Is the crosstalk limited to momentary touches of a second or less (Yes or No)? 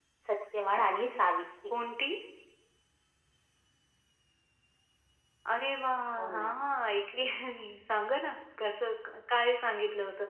Yes